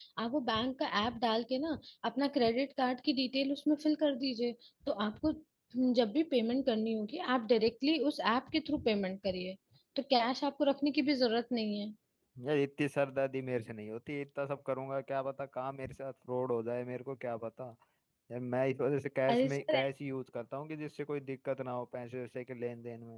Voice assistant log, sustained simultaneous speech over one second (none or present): none